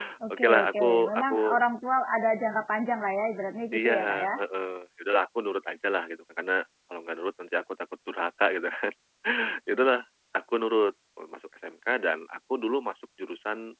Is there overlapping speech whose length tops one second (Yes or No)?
Yes